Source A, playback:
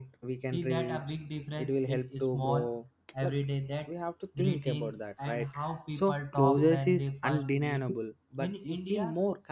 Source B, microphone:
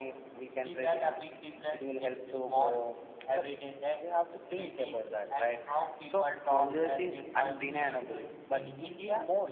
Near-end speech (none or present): present